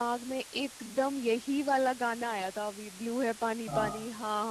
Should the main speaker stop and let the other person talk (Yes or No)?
No